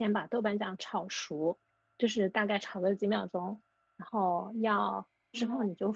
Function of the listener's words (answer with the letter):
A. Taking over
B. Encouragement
B